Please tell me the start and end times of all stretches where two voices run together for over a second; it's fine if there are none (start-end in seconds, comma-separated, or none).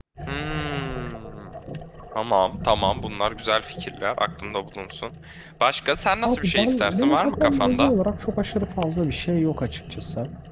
6.2-7.9